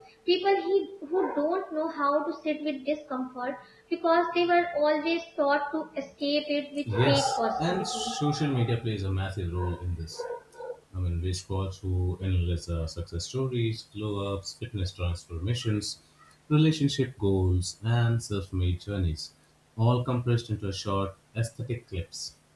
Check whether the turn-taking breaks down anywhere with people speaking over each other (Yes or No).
Yes